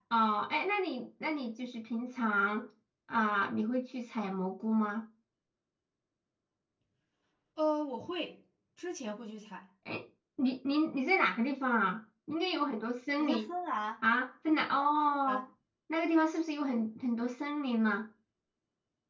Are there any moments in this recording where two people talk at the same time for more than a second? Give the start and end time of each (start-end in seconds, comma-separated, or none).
none